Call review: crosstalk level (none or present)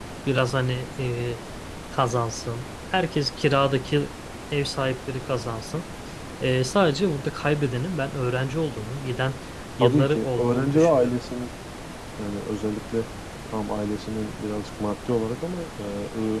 present